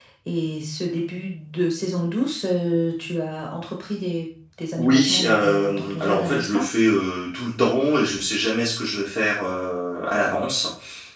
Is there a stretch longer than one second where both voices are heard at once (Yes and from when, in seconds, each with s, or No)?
Yes, from 4.8 s